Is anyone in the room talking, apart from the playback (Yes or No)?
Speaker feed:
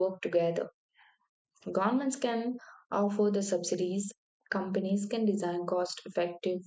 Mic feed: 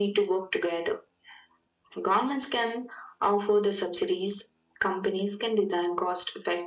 No